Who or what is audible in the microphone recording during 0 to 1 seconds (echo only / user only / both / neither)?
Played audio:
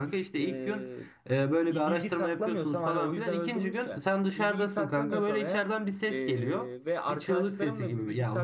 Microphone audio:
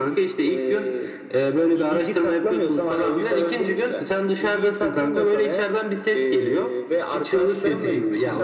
echo only